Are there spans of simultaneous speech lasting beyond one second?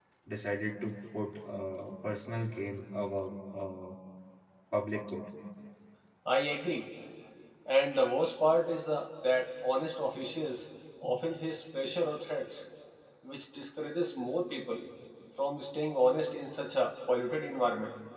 No

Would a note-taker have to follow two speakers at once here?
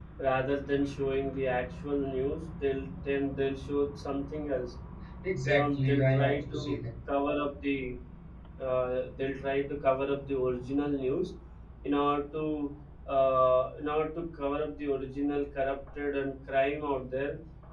Yes, from 5.4 s

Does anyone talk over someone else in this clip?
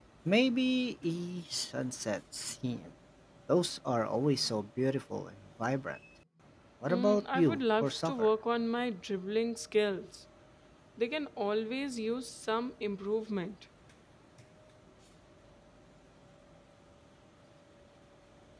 Yes, from 6.9 s

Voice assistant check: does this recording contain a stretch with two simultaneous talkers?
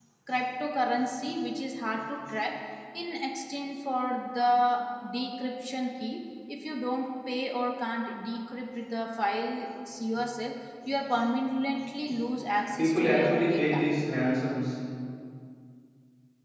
Yes, from 12.6 s

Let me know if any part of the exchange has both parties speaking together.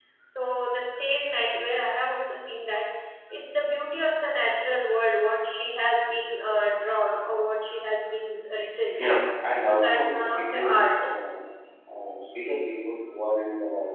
Yes, from 9.6 s

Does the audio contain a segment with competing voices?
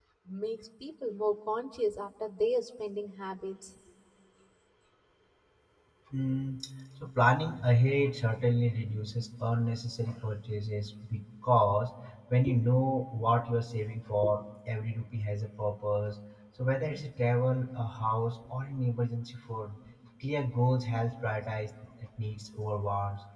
No

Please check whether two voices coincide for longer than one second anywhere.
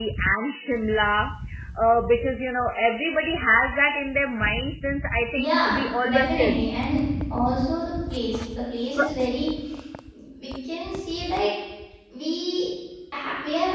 Yes, from 5.3 s

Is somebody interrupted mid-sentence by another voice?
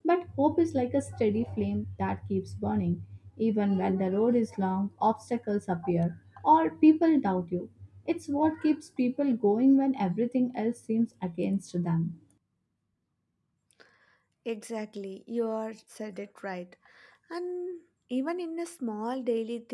No

